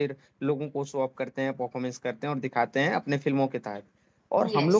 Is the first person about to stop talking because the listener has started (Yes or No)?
No